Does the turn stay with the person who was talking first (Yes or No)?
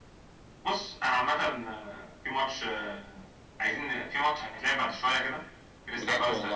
Yes